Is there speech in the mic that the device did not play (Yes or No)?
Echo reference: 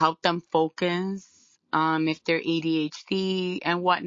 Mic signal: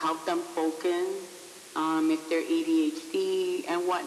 No